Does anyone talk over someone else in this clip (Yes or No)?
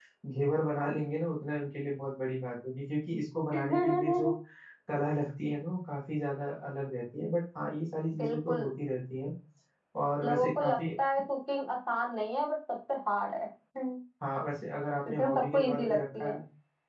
Yes